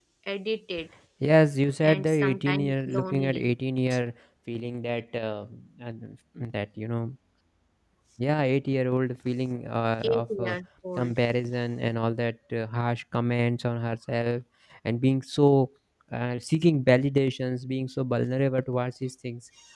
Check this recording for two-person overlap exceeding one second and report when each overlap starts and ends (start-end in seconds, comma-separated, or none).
1.8-3.5